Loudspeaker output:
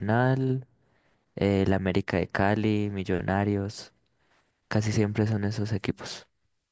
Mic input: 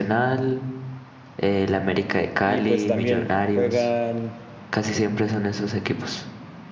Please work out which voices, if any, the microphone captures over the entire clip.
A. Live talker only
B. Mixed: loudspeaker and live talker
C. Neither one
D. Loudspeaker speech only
B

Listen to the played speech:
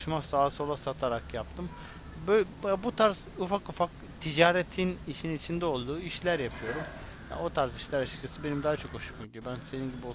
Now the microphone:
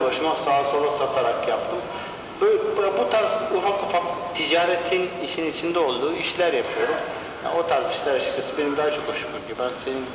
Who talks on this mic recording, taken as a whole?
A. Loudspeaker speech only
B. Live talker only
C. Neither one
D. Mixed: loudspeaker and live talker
A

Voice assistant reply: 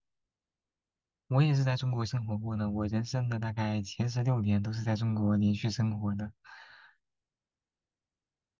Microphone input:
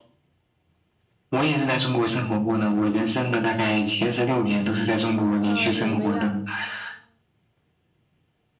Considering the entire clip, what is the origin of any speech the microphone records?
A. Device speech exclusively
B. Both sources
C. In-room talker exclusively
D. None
B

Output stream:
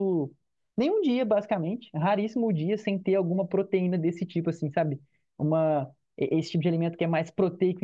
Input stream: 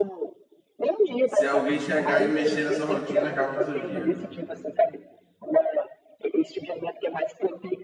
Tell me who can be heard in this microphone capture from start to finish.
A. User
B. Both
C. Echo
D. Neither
B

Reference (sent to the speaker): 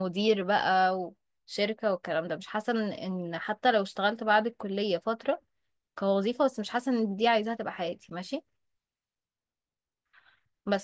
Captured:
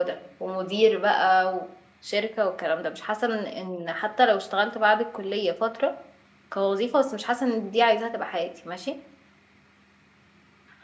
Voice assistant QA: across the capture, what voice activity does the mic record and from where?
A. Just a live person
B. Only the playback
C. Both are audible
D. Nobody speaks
B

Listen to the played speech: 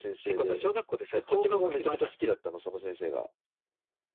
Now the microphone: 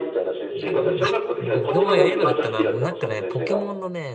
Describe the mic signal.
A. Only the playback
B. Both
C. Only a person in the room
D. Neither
B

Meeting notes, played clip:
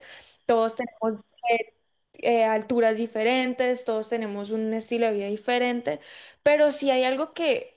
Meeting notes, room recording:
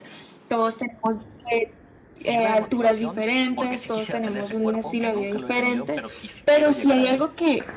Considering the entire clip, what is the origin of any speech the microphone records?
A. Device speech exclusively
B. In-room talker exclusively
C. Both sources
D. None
C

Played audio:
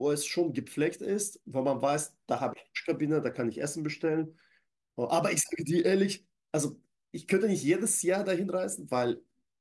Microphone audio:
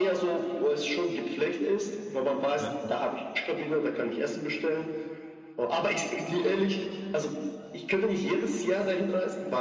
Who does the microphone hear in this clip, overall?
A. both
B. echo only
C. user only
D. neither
A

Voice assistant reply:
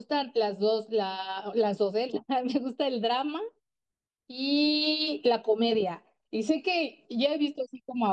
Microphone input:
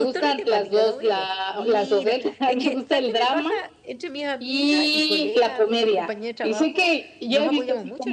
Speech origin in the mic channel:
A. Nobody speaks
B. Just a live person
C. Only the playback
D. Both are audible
D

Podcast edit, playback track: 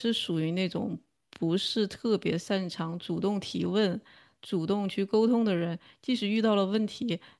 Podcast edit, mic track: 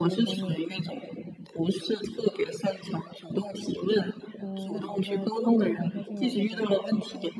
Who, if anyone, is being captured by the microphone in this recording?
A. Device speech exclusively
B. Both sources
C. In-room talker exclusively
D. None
B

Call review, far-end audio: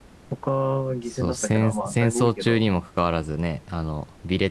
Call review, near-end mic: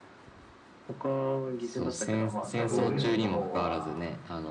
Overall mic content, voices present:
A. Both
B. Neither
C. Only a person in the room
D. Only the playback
A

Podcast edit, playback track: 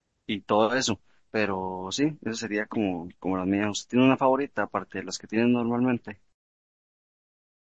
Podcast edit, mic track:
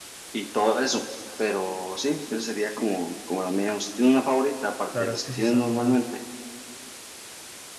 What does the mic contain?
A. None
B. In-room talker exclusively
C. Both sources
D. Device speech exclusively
C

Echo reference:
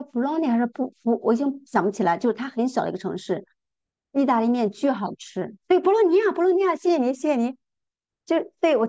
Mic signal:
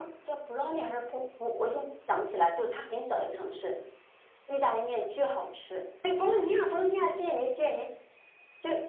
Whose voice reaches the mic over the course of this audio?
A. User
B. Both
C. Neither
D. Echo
D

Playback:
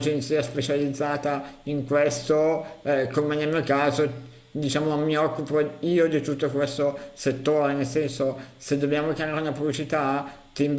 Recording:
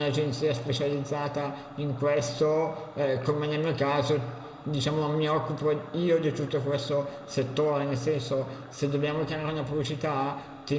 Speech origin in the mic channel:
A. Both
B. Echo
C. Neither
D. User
B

